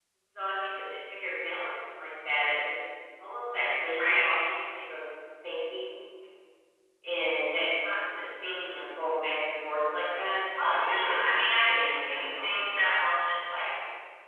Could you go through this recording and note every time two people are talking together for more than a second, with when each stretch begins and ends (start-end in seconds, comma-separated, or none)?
10.7-12.6